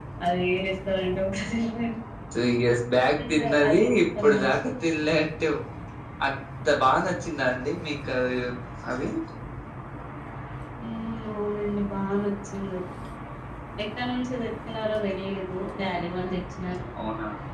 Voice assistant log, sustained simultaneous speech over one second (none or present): present